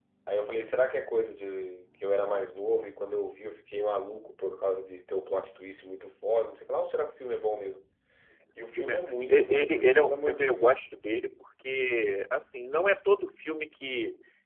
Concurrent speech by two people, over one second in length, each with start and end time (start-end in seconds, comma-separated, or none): 8.8-10.8